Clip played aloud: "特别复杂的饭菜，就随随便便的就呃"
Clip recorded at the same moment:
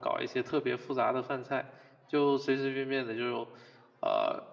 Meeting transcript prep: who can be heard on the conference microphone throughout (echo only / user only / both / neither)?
echo only